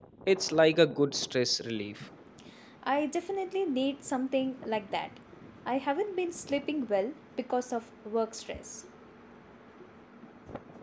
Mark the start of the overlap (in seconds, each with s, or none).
none